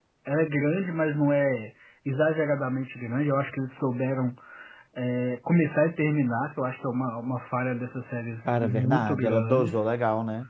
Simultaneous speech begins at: 8.4 s

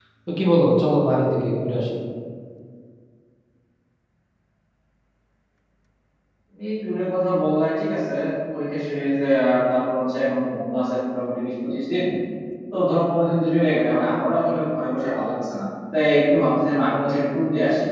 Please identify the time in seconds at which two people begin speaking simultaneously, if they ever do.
none

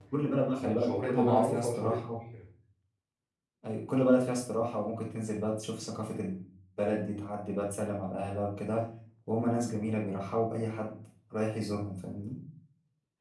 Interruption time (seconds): 0.7 s

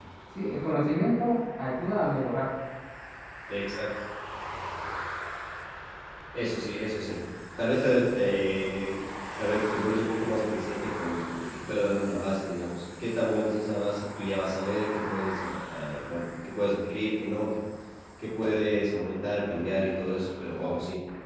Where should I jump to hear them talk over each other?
none

